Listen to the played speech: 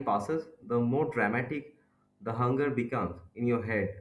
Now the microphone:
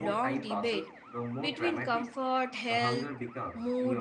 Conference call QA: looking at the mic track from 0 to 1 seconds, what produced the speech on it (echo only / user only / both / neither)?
both